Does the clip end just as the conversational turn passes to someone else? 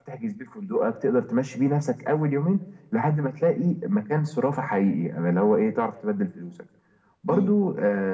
No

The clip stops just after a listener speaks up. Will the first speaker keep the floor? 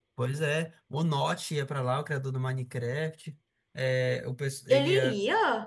Yes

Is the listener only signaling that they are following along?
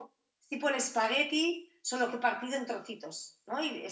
No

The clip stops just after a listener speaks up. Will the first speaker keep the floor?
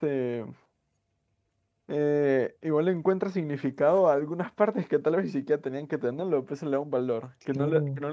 Yes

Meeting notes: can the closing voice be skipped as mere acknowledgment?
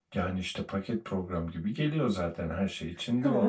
No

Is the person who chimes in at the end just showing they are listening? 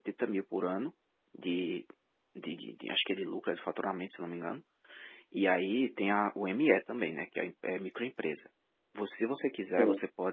Yes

